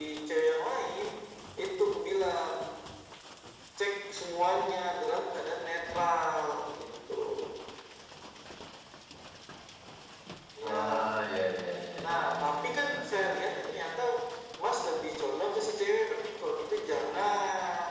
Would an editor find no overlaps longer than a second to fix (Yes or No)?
No